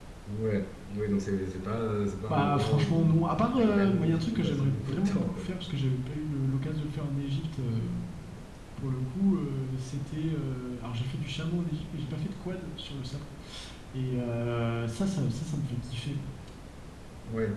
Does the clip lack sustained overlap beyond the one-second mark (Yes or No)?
No